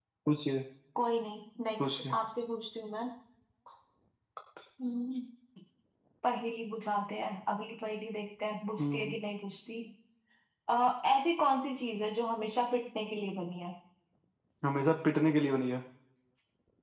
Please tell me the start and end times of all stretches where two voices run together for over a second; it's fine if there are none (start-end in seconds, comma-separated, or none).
none